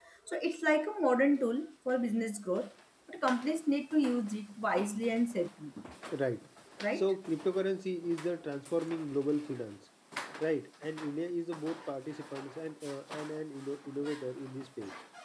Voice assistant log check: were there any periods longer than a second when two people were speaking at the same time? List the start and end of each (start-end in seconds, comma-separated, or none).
none